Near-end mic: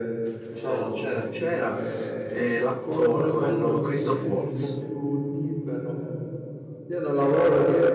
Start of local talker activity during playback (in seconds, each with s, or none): 0.5 s